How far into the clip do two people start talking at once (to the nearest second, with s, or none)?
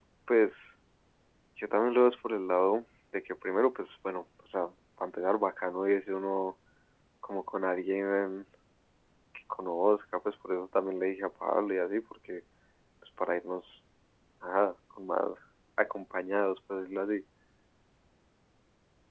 none